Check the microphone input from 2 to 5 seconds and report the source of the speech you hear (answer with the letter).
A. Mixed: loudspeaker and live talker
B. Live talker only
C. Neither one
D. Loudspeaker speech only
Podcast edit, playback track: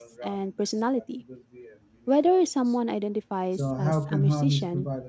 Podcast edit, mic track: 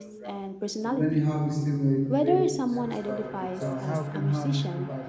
A